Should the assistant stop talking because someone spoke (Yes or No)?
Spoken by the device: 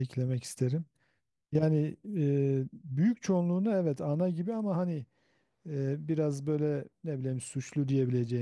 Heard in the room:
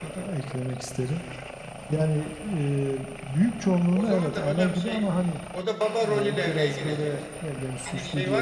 Yes